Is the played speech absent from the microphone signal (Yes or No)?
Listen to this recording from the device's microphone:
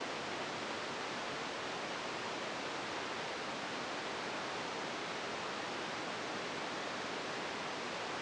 Yes